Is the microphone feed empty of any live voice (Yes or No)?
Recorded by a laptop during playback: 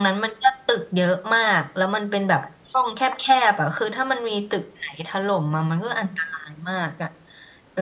Yes